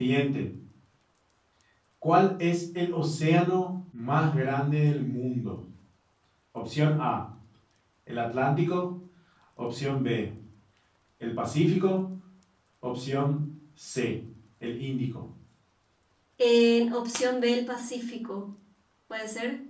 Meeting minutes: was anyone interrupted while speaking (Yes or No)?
No